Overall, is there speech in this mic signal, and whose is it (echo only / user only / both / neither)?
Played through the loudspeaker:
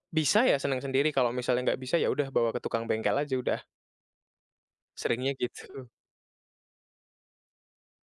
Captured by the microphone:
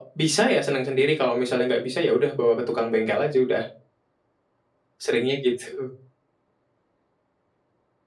echo only